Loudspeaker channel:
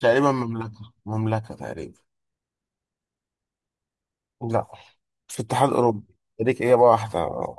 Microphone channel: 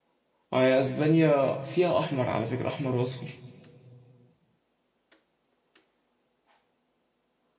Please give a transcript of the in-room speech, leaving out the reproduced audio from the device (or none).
اه هي اسبانيا فيها احمر على فكرة احمر واصفر